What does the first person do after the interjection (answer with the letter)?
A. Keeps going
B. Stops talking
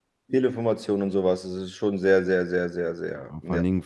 B